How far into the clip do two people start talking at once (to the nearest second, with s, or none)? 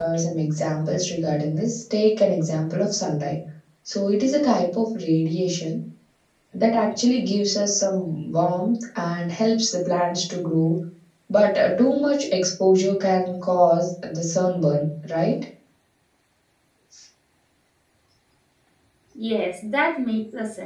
none